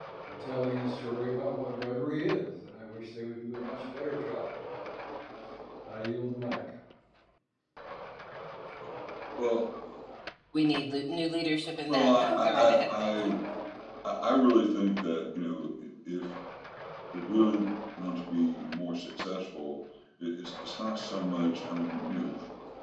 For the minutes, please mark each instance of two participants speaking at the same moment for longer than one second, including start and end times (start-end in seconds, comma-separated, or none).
11.9-13.2